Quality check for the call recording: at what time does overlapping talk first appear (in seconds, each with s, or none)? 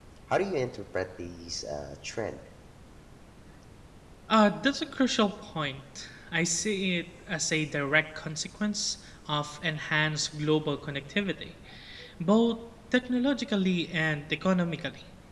none